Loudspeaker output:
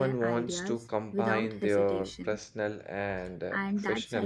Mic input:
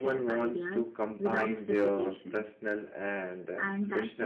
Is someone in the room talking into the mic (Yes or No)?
No